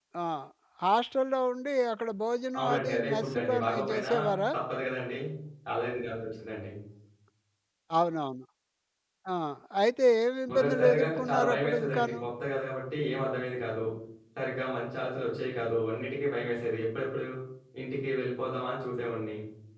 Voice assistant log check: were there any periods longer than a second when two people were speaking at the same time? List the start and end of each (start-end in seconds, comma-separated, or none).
2.6-4.1, 10.5-12.2